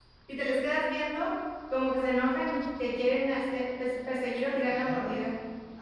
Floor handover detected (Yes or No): Yes